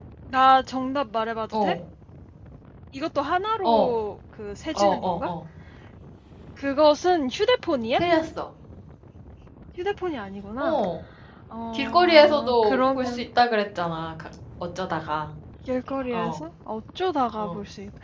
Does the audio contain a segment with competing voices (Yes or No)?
Yes